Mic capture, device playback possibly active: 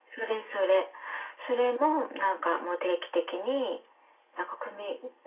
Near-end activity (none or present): none